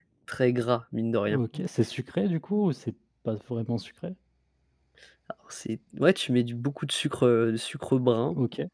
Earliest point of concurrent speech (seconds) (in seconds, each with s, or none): none